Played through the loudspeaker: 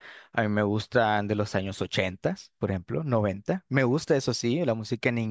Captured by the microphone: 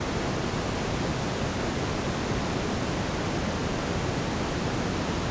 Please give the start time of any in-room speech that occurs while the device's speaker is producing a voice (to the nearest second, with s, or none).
none